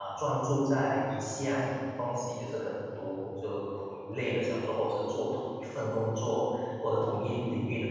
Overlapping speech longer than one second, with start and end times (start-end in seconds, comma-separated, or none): none